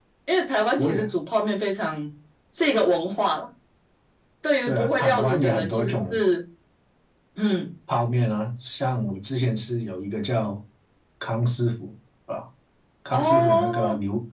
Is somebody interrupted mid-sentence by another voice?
Yes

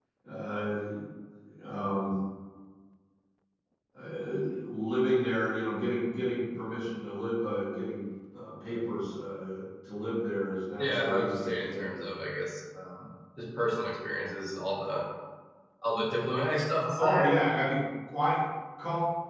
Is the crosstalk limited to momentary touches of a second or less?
No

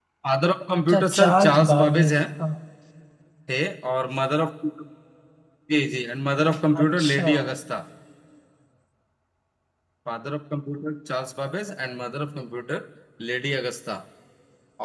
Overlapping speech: Yes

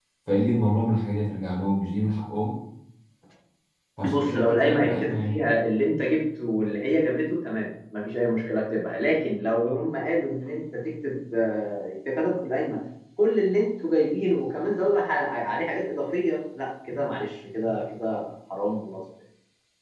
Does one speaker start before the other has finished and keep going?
Yes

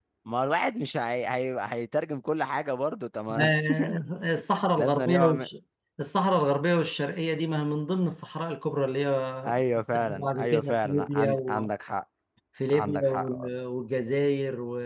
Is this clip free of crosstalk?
No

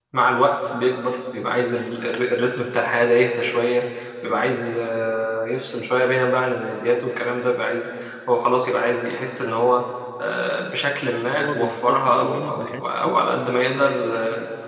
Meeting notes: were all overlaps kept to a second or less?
No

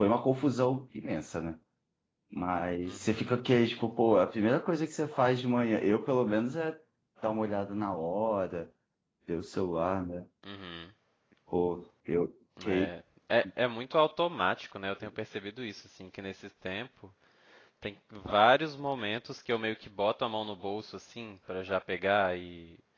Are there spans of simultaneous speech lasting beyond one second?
No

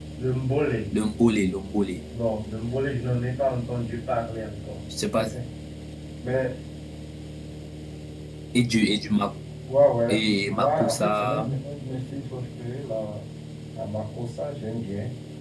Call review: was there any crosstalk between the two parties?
Yes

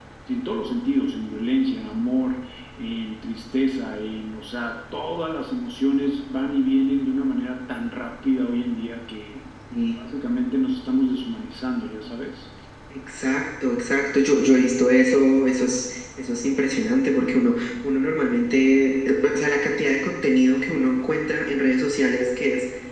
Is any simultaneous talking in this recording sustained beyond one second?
No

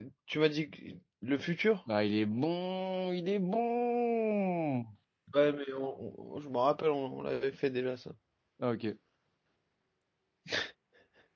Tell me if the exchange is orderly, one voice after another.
Yes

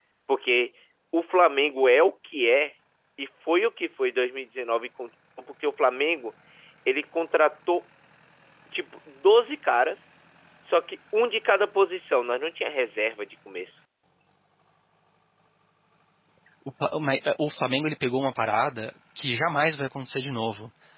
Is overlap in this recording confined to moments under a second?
Yes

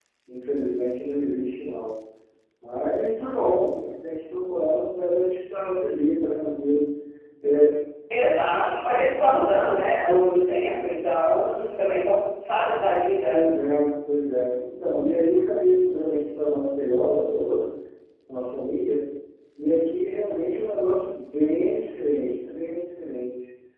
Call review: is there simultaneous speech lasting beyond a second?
No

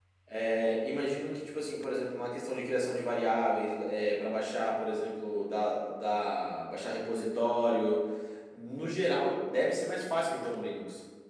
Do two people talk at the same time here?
No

